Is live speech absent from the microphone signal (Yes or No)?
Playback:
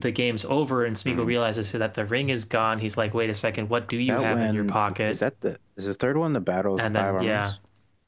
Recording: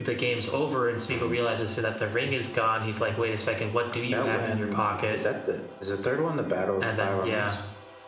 Yes